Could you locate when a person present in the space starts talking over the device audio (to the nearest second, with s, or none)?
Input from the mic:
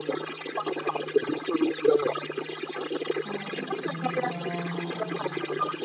3 s